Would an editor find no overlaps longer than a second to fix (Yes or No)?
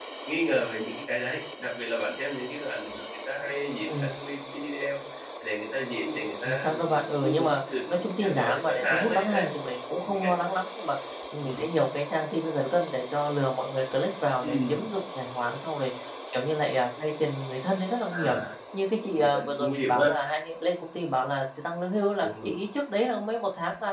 No